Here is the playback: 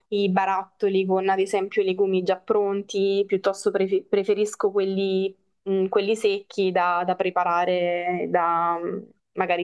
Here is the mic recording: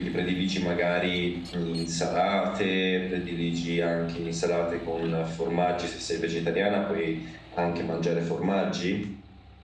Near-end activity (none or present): present